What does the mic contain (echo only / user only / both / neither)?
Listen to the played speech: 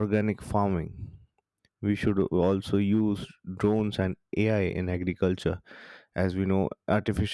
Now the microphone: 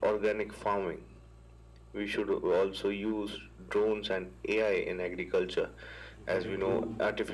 both